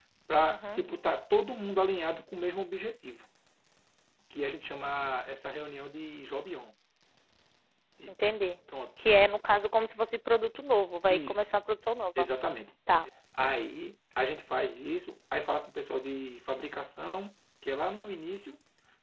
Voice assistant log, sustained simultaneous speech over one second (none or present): none